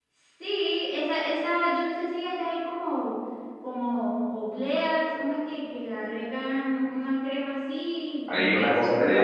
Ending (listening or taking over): taking over